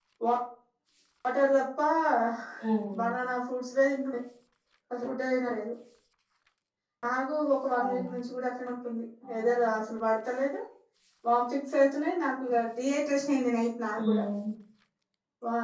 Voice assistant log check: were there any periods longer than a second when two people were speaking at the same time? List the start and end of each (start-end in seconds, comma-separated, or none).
none